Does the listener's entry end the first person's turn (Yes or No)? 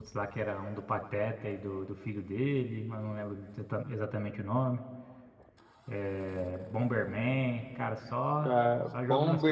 Yes